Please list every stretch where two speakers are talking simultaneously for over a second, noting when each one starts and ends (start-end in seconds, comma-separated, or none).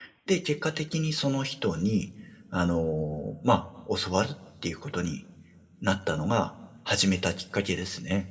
none